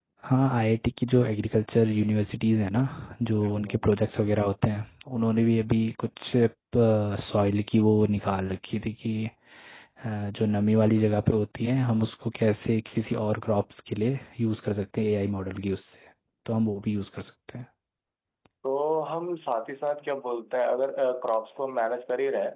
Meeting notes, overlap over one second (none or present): none